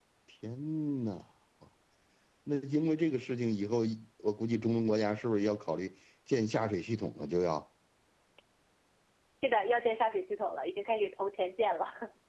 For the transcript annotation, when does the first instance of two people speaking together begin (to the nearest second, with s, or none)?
none